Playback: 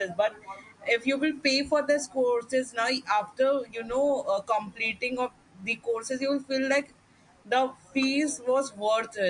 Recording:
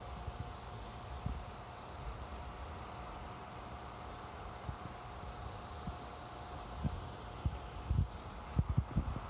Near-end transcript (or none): none